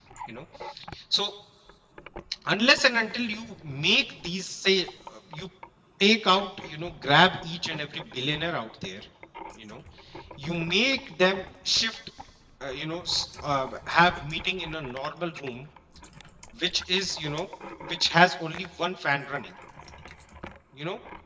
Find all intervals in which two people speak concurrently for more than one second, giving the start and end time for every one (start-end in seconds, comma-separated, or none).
none